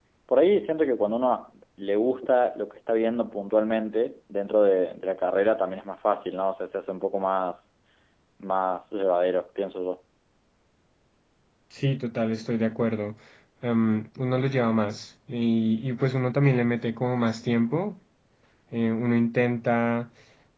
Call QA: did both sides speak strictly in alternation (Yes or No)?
Yes